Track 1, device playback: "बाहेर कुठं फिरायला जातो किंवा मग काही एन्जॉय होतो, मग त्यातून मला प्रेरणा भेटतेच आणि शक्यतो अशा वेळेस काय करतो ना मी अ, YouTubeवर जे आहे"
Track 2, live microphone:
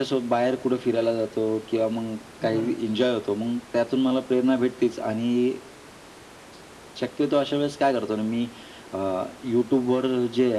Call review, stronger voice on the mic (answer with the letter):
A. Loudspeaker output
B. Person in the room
A